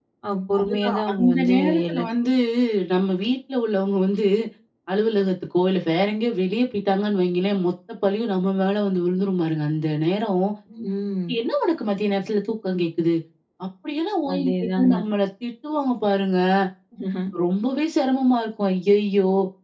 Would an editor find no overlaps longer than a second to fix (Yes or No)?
No